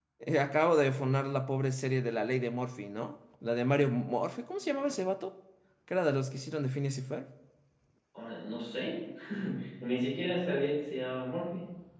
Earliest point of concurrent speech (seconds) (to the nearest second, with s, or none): none